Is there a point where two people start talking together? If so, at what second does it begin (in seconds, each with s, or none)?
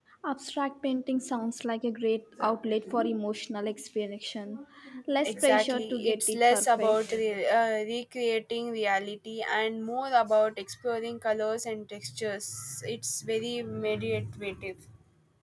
5.2 s